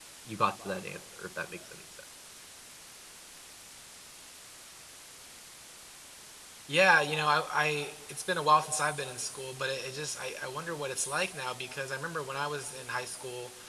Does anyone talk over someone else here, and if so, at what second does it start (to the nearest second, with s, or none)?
none